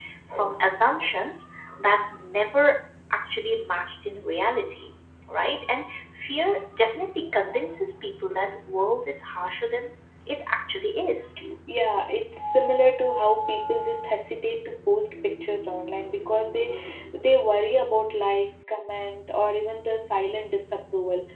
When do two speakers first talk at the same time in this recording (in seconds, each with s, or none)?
none